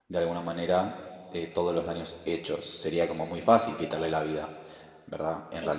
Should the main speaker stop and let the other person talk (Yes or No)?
No